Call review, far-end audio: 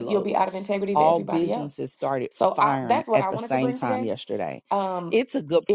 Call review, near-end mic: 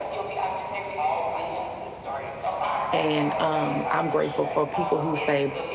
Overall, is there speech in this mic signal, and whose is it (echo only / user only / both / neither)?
both